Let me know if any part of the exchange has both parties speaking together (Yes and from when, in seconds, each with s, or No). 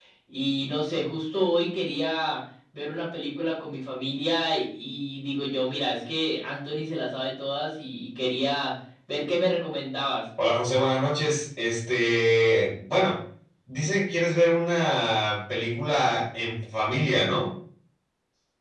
No